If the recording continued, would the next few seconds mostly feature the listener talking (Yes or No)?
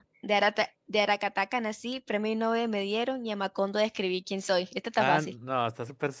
Yes